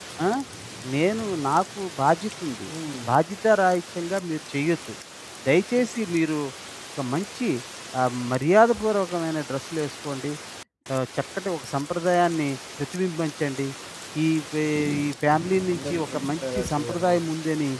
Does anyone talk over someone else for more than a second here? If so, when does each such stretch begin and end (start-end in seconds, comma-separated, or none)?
15.7-17.2